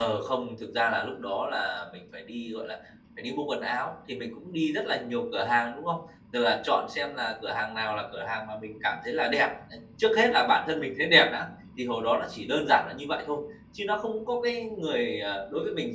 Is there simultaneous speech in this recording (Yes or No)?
No